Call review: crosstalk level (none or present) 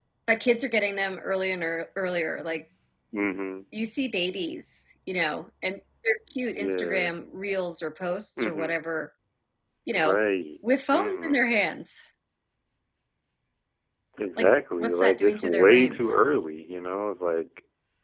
present